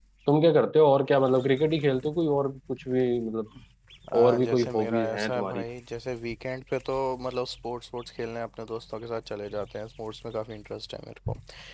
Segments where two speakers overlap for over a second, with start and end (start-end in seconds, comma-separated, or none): 4.2-5.6